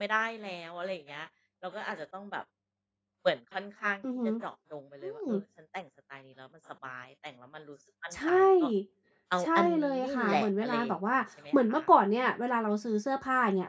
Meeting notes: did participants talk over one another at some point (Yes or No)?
Yes